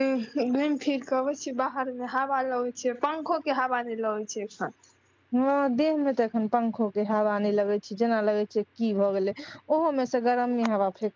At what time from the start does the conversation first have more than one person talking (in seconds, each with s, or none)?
none